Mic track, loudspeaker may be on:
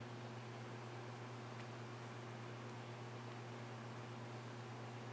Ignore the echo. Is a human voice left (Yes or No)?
No